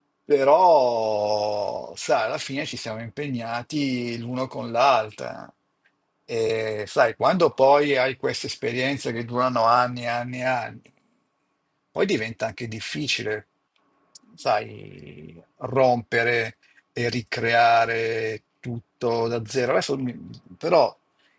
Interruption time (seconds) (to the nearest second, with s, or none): none